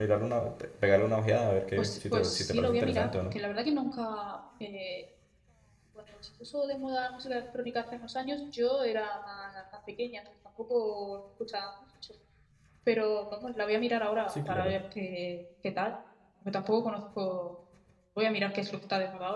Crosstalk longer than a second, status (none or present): present